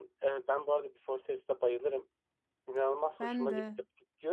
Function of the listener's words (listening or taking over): listening